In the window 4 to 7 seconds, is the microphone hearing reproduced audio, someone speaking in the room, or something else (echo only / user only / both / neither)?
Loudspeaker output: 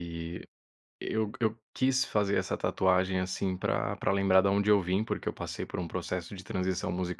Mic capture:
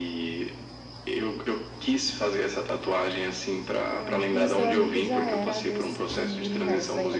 both